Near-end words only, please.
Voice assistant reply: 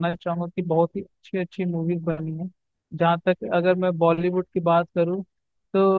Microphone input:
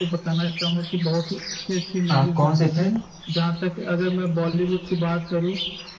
अ, कौन सी फिल्म

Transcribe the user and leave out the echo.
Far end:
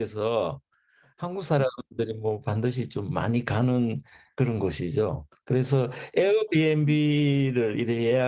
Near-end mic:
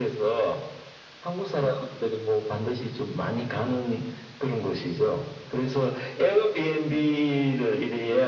none

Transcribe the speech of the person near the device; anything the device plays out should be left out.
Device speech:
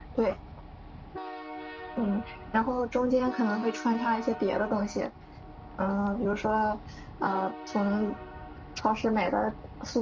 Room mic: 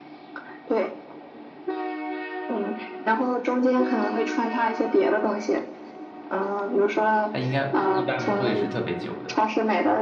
它应该一般不会是特别久的，

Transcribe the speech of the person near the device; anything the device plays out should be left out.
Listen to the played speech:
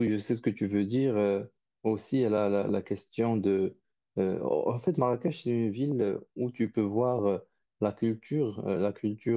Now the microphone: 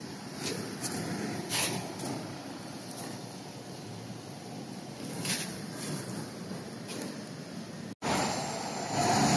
none

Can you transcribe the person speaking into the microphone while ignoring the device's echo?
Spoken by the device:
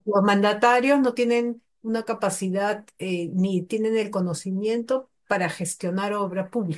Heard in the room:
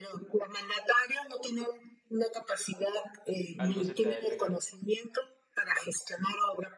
algo se te ha de pegar.

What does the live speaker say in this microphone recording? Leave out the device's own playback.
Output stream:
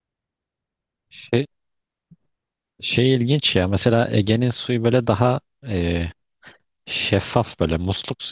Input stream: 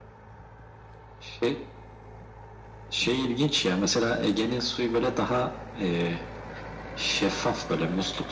none

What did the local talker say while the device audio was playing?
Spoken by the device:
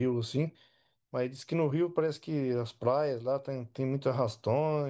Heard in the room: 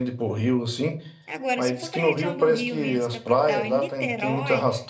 Agora, se for para a região do Rio mesmo, capital, e Niterói,

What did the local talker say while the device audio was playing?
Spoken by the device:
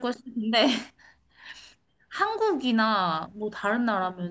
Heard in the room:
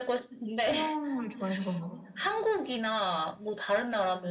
수영을 좋아해서 그런가 봐.

